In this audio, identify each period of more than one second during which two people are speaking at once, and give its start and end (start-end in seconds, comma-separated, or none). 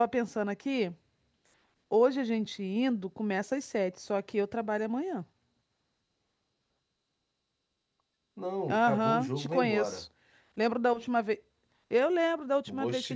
8.7-10.0